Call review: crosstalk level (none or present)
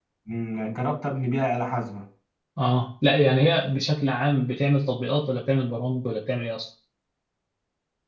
none